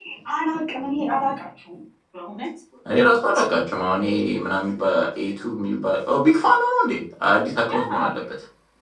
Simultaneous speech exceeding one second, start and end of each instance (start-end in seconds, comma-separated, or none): none